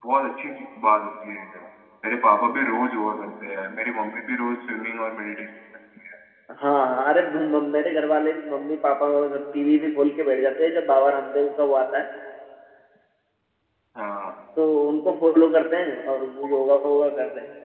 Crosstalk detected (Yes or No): No